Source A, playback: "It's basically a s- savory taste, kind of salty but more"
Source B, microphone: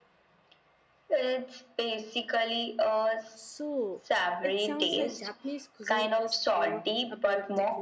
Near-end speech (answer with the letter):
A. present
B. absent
A